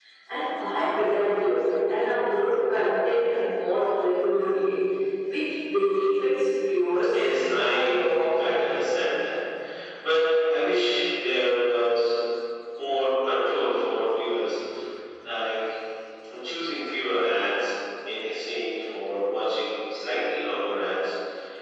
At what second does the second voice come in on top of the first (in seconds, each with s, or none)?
7.1 s